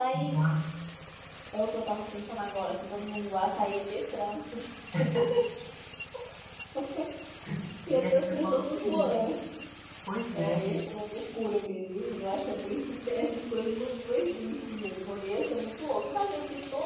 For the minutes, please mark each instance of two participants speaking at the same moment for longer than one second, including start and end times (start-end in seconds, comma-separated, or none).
8.0-9.2